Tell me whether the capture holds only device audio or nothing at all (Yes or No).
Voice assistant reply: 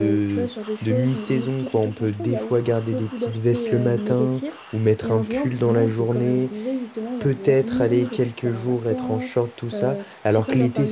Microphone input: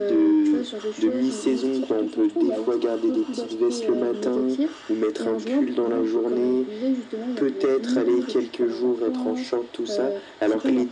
Yes